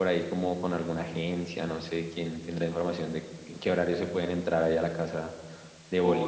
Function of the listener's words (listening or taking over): taking over